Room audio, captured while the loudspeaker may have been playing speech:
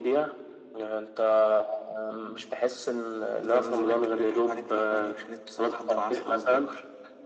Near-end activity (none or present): none